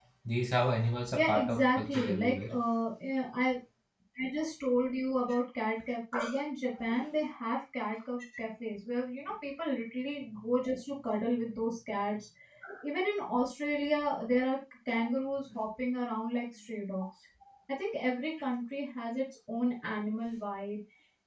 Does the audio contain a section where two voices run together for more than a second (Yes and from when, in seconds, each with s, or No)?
Yes, from 1.1 s